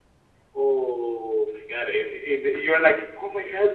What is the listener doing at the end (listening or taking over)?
listening